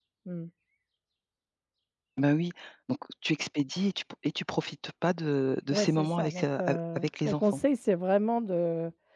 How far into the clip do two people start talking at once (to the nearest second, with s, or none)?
6 s